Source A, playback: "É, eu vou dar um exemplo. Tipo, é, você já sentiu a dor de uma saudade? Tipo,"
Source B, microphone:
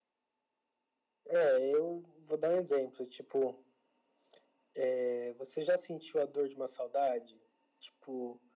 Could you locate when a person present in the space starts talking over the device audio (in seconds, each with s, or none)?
none